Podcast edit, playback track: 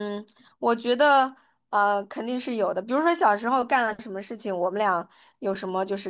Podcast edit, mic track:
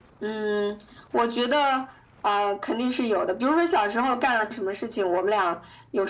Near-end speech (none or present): none